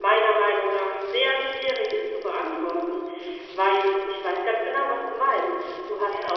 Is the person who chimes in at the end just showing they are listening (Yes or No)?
Yes